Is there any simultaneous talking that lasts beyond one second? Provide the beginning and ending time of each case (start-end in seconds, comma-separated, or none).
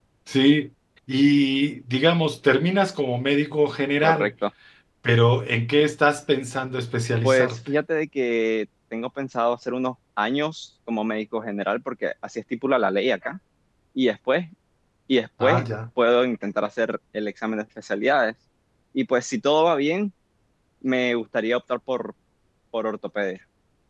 none